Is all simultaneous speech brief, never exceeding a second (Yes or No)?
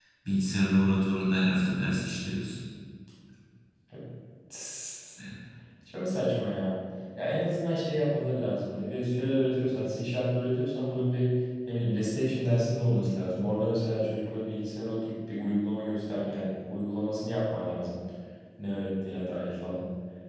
Yes